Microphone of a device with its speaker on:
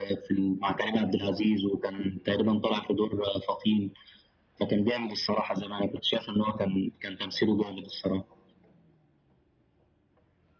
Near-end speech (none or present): none